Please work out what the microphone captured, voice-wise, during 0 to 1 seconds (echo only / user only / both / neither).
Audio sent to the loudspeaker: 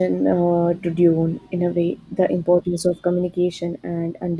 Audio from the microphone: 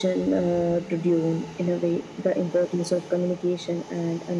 echo only